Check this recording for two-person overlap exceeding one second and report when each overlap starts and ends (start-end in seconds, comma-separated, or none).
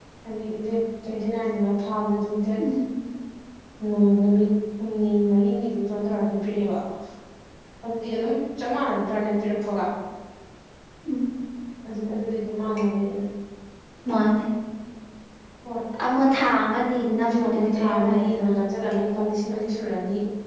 17.0-18.5